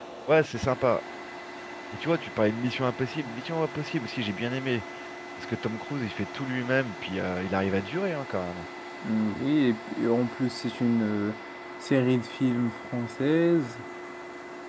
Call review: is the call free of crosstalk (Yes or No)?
Yes